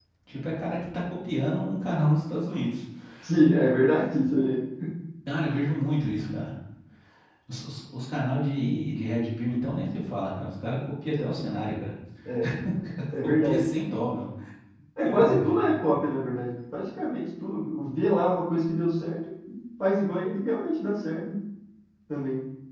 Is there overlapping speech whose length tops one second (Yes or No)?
No